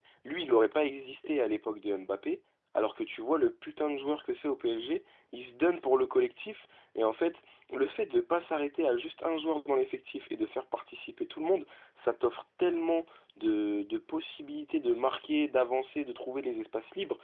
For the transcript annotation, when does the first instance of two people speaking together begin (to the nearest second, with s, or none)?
none